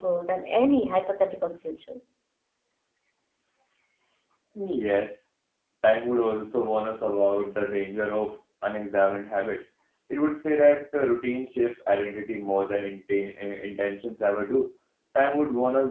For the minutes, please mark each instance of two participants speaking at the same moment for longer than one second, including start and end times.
none

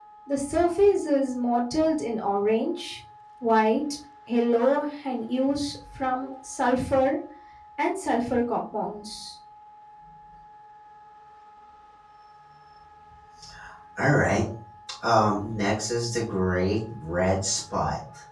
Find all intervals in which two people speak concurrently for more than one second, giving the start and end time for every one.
none

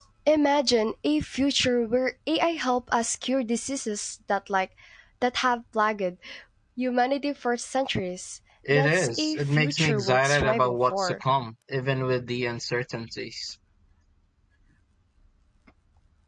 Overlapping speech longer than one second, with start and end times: 8.7-11.2

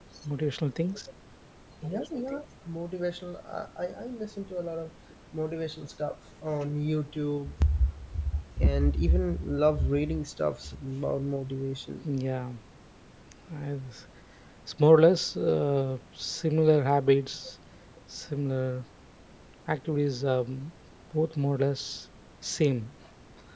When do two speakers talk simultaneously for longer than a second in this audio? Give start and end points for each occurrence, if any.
none

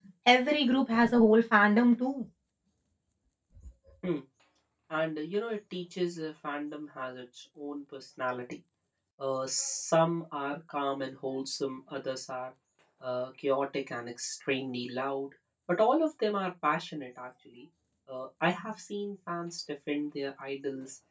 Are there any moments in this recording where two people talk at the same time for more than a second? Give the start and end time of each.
none

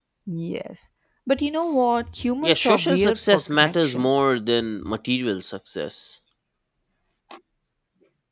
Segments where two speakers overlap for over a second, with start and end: 2.4-4.1

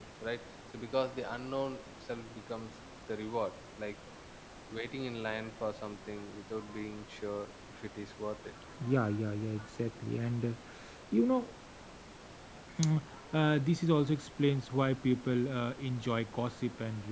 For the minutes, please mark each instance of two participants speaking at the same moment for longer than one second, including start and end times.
none

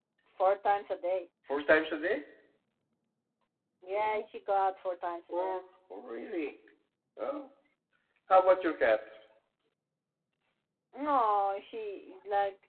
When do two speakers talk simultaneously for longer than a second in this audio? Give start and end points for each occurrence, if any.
none

